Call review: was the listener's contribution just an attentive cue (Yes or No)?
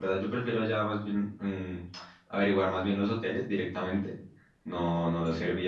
Yes